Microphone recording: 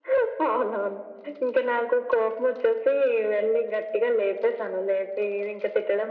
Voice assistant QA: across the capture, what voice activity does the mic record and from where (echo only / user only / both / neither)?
echo only